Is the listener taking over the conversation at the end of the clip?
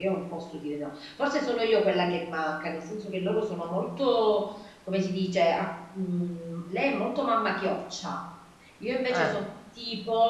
No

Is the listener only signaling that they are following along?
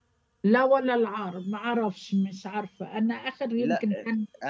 No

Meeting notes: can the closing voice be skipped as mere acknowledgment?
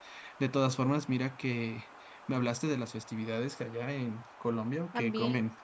Yes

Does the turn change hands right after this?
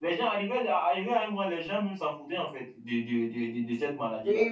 Yes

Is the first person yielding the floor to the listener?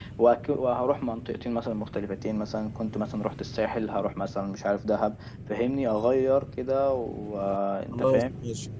Yes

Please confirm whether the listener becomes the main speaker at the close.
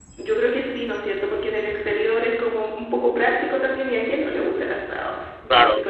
Yes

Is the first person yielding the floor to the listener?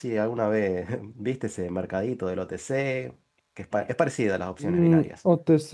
Yes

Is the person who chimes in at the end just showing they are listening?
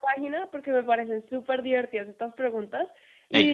Yes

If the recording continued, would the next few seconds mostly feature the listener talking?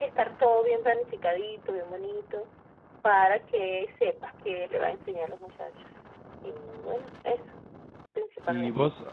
Yes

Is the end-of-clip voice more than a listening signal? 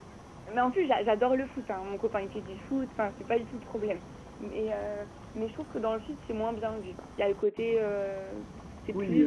Yes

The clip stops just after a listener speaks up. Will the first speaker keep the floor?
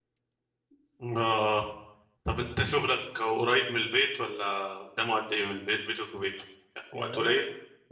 No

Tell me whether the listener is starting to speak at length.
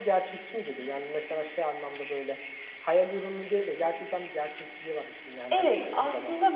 Yes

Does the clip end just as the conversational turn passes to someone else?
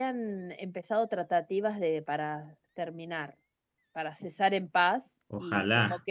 No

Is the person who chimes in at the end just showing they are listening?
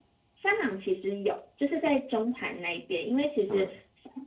Yes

